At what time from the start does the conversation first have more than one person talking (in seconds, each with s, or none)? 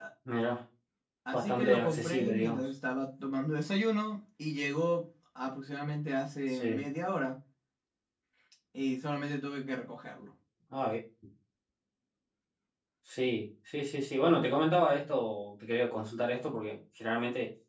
1.3 s